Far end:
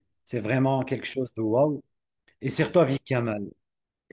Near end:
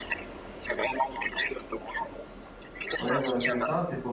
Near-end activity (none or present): present